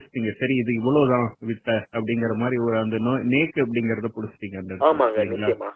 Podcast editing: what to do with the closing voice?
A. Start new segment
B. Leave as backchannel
A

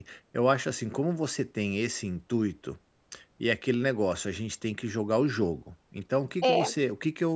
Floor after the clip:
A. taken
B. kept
B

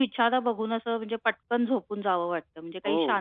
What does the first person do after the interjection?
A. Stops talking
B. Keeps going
B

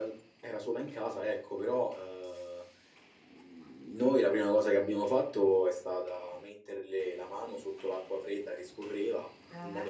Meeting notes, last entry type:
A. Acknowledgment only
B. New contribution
A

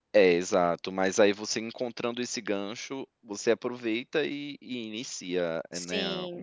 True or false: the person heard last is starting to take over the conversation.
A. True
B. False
A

